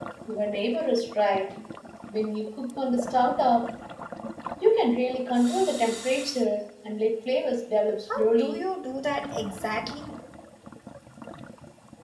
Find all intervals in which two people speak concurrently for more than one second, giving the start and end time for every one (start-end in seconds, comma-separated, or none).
none